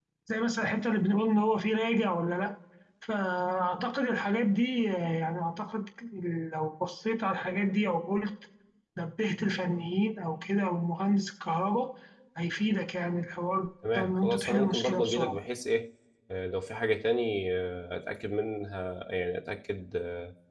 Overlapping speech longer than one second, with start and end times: 14.0-15.4

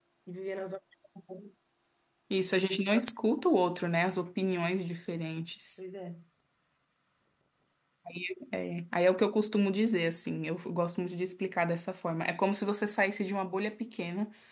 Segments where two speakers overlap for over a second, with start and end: none

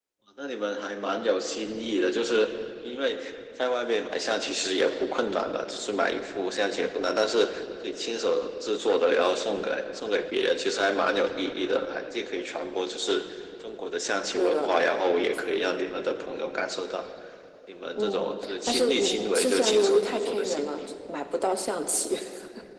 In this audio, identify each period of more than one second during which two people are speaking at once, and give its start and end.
17.9-20.9

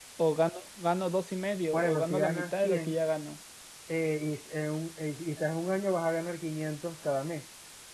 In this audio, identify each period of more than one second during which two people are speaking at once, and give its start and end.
1.7-3.0

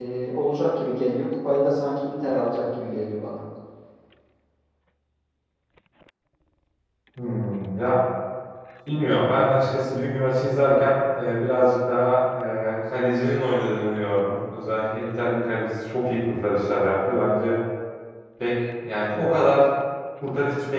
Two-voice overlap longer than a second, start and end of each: none

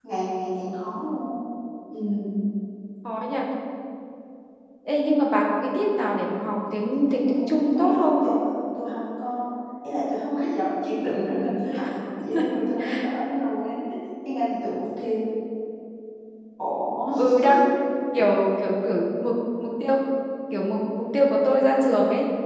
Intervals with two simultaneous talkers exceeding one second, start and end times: 6.9-8.2

